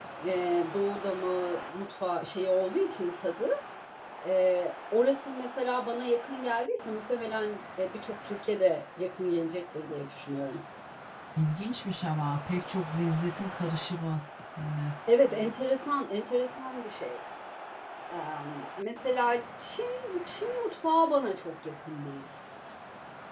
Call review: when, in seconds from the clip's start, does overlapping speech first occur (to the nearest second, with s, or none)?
none